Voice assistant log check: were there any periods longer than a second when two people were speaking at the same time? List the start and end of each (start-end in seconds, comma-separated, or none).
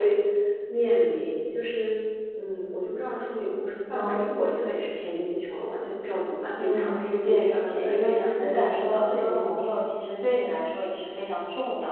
6.6-9.6